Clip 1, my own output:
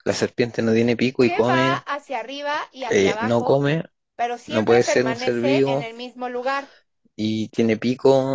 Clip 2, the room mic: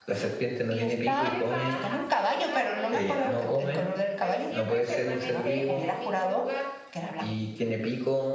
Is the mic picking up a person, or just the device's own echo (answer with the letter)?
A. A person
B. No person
A